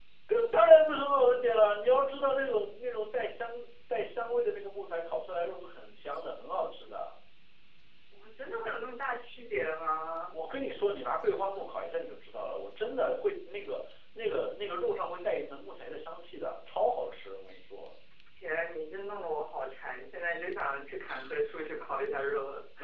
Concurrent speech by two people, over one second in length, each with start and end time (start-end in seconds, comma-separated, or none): none